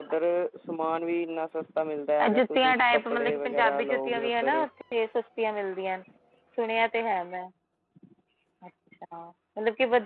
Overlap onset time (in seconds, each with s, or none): 2.2 s